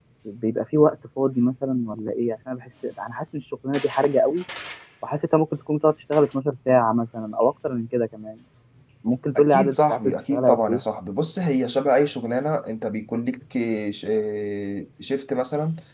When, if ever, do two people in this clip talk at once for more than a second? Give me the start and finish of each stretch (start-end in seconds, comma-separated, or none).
9.4-10.8